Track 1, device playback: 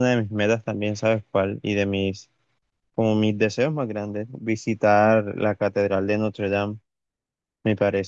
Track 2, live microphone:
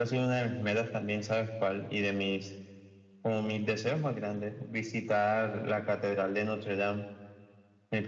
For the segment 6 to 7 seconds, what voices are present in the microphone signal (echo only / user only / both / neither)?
echo only